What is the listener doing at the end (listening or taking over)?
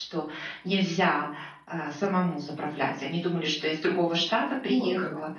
listening